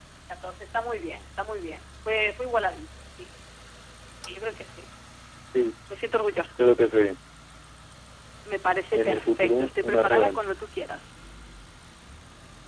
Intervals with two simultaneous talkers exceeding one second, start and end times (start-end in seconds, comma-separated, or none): 8.9-10.5